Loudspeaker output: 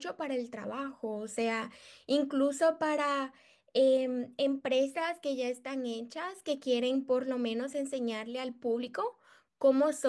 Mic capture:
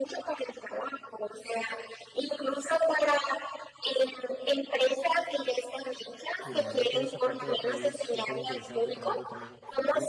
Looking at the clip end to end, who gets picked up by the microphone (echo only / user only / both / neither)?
both